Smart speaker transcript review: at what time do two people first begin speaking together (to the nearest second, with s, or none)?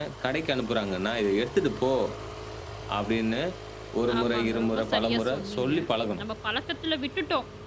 4 s